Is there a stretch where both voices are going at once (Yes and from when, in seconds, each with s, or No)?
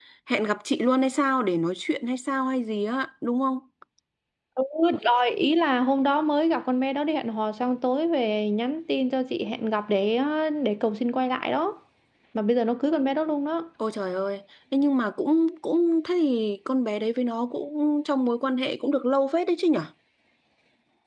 No